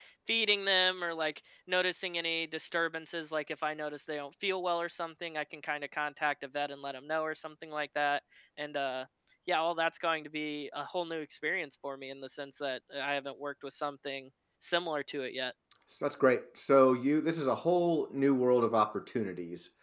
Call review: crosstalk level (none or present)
none